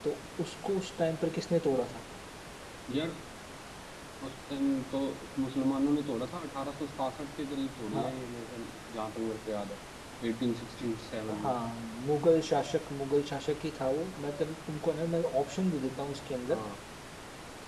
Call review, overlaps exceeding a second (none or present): none